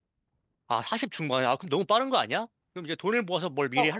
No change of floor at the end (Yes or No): No